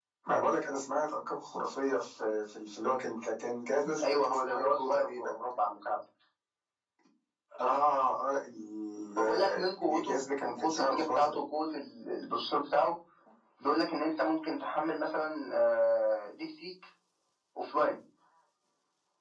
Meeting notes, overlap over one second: present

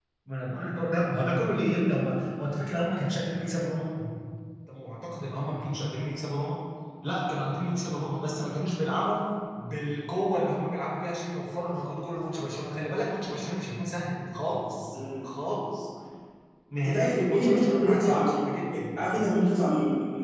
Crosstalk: present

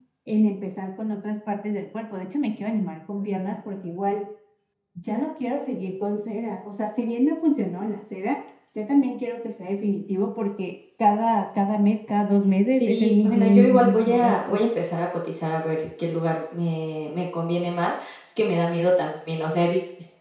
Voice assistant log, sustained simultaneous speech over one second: present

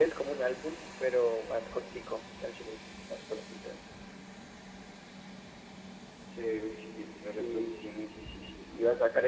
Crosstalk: present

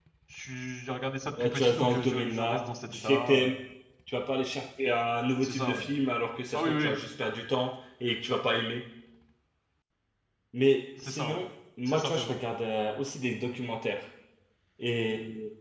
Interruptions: present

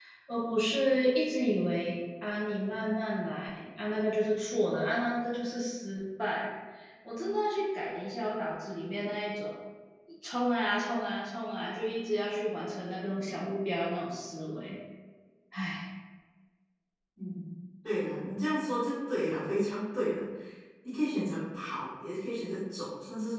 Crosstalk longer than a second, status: none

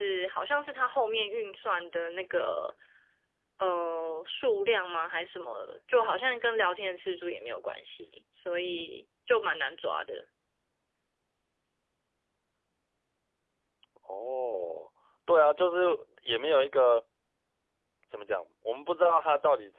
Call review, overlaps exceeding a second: none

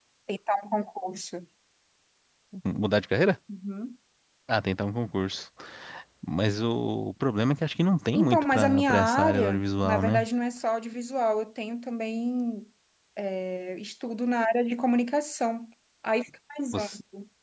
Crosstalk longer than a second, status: present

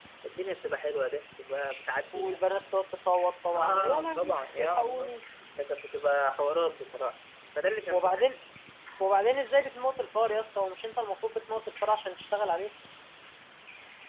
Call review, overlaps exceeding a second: present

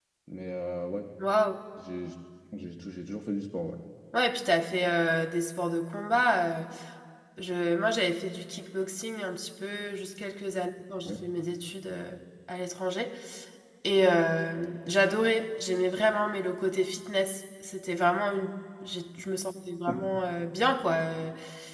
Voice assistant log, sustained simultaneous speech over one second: none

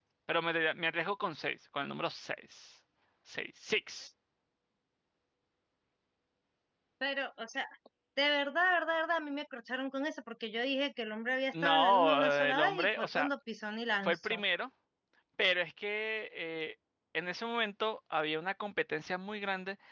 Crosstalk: present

